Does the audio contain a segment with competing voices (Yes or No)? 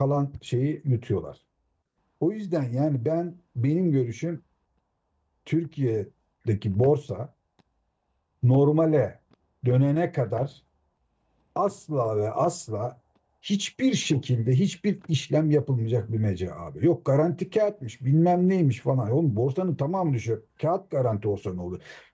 No